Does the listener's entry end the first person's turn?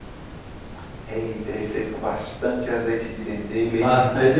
Yes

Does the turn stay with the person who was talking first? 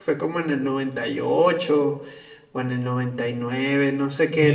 No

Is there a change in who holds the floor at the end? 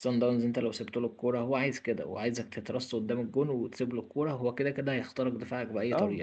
Yes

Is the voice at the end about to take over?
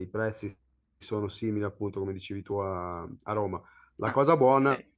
No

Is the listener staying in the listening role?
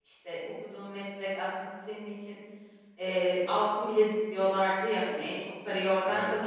Yes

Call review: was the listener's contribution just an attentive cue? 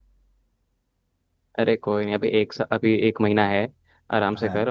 Yes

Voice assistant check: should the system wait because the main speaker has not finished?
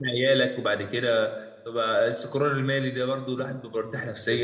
No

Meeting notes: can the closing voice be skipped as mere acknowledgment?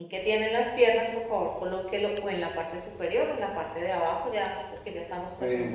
No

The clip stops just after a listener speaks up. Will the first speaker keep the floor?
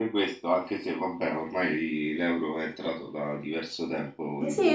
No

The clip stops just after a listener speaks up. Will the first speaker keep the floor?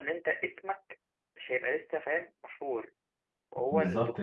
No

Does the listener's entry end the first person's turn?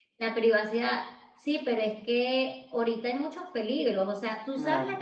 No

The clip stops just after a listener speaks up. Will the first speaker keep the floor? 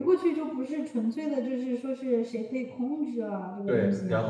No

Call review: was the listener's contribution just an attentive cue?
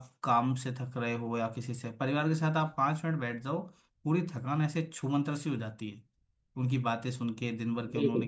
Yes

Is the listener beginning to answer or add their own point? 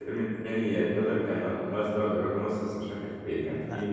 No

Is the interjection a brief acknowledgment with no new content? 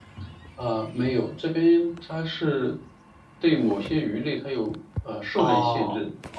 No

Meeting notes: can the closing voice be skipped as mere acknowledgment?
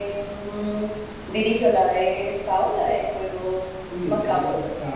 No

